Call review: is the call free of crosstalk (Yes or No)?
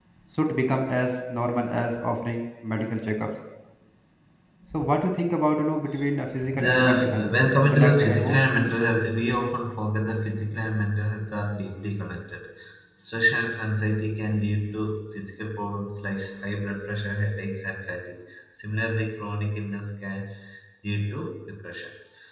No